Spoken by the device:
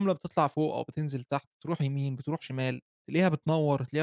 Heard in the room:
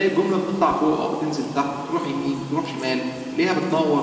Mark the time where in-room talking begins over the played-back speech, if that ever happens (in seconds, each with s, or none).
none